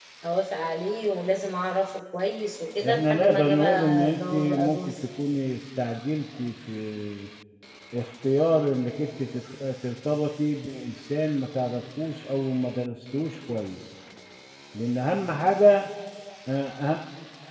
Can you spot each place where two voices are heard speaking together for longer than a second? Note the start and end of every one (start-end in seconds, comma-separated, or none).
2.9-4.9